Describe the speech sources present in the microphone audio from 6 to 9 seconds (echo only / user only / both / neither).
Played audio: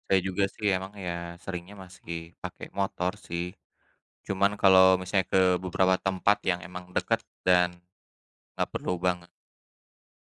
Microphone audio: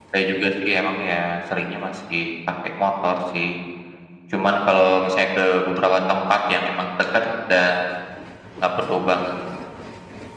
echo only